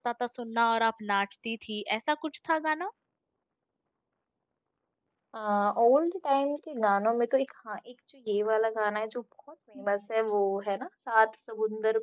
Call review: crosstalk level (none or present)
none